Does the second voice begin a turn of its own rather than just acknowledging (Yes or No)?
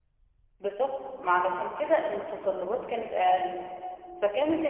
No